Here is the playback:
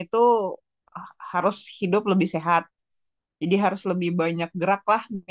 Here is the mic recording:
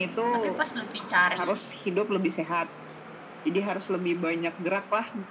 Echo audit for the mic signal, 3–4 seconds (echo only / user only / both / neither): echo only